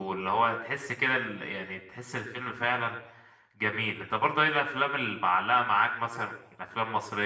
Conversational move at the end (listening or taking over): listening